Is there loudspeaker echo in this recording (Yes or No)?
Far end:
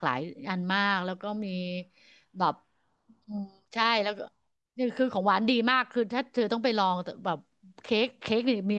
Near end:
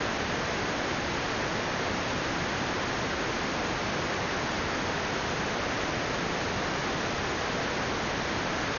No